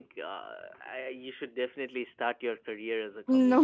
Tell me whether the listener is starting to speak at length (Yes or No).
No